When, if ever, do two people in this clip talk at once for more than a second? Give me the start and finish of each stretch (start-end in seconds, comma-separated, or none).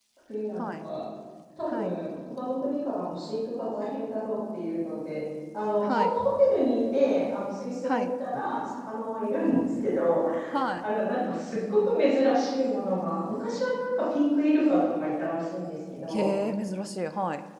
none